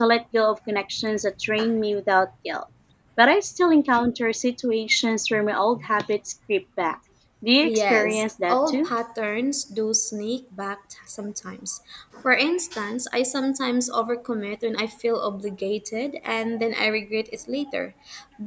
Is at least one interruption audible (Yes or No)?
Yes